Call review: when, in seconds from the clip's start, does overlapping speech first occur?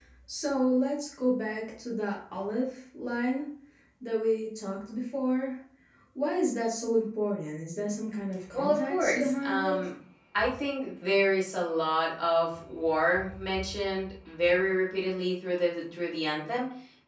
8.5 s

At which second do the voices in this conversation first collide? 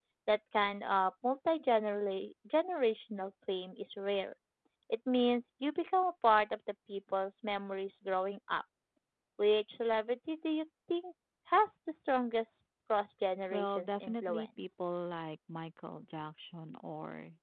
13.5 s

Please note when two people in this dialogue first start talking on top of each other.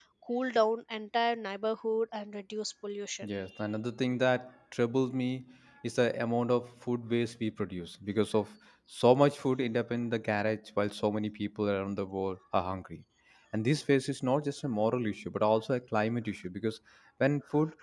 none

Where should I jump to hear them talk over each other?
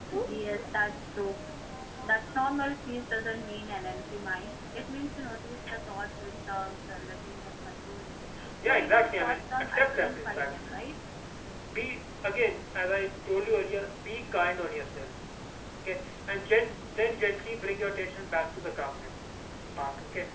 8.6 s

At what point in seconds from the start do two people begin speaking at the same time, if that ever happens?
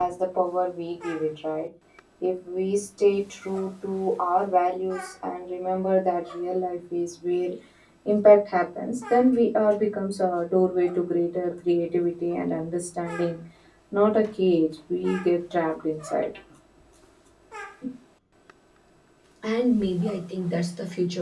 none

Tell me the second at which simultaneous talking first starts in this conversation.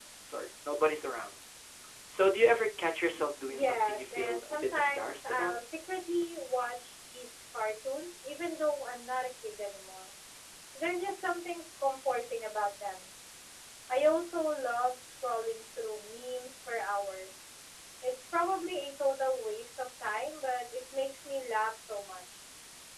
3.4 s

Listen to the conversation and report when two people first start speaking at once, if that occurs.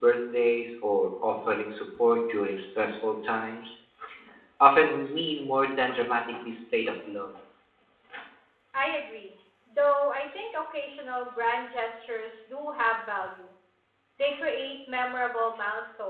none

